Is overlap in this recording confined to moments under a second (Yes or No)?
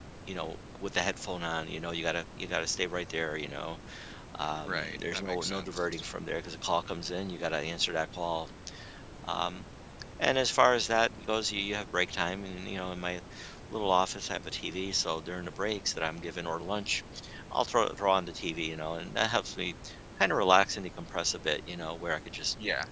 No